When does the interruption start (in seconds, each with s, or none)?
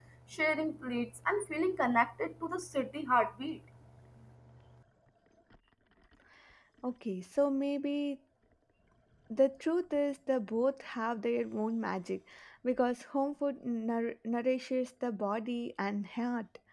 none